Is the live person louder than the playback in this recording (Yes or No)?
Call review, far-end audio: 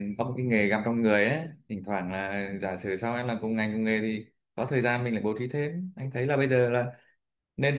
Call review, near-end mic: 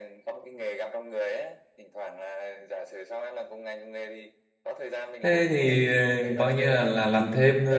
Yes